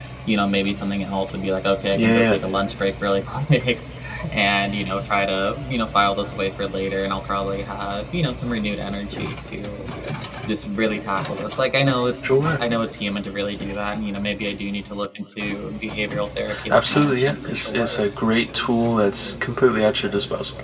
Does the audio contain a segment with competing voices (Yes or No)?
Yes